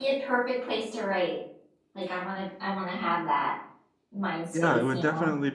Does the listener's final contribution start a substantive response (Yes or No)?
Yes